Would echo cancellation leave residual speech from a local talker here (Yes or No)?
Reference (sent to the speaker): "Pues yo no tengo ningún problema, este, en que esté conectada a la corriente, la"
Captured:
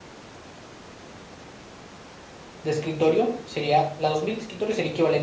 Yes